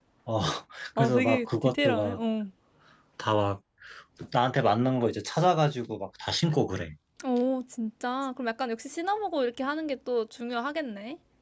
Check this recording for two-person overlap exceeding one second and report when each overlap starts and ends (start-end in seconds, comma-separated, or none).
1.0-2.2